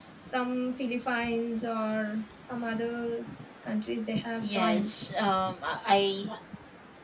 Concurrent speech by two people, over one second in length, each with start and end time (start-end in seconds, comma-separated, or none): none